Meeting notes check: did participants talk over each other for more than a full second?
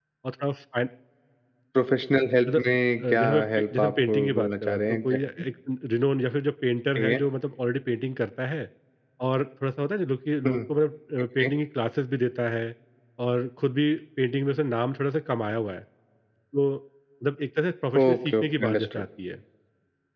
Yes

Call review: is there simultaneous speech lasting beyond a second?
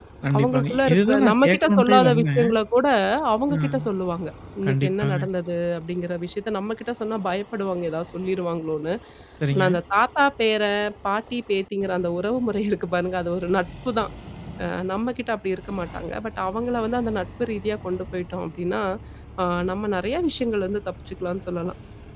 Yes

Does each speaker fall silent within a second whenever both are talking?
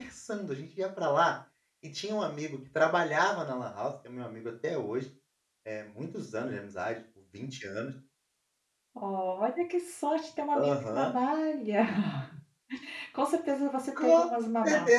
Yes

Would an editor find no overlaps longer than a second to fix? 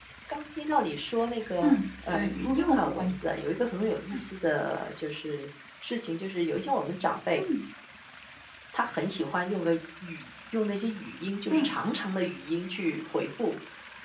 No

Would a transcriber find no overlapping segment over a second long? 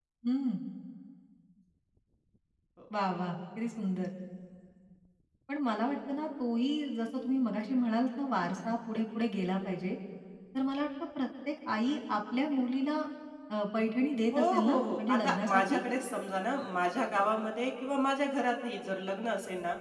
No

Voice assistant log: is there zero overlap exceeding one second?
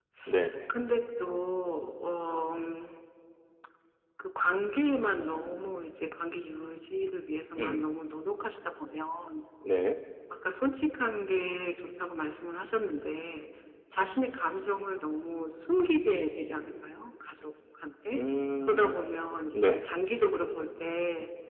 Yes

